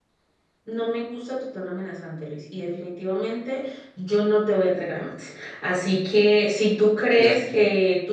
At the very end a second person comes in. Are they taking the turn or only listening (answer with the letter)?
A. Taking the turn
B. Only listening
B